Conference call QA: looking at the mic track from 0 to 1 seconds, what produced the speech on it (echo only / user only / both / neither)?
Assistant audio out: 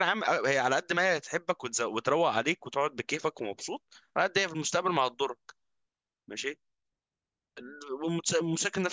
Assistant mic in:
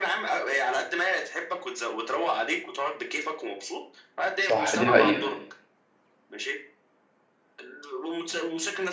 echo only